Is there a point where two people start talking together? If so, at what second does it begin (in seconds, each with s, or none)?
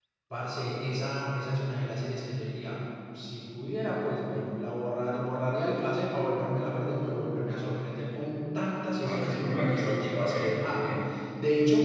9.0 s